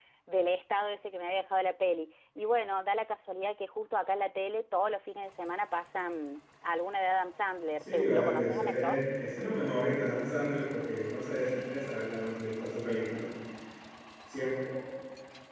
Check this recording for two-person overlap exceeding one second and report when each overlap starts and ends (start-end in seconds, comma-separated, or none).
7.8-9.0